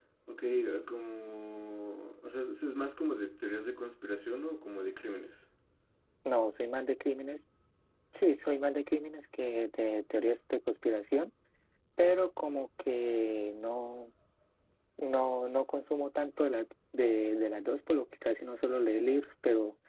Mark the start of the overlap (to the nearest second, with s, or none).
none